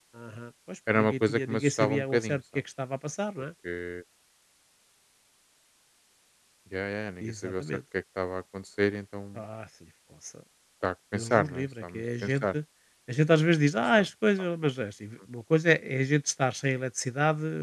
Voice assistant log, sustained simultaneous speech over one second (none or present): present